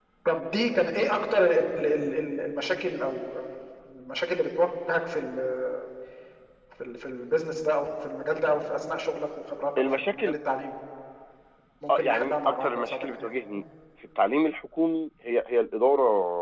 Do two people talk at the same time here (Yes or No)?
Yes